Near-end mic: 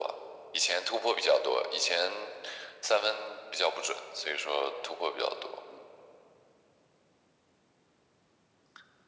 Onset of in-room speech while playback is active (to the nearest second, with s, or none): none